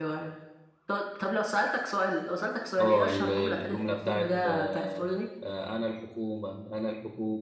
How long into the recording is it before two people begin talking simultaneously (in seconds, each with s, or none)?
2.8 s